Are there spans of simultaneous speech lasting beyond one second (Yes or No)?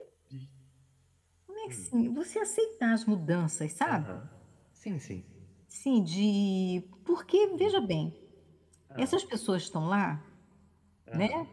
No